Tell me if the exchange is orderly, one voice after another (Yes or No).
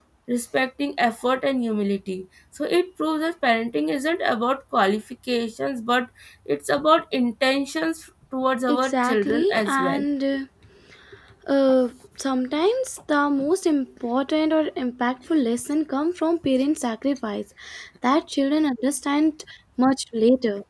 No